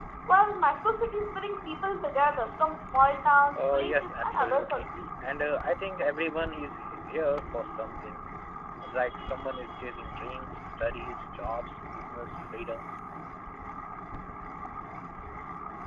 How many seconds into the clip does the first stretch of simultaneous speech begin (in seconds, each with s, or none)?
3.5 s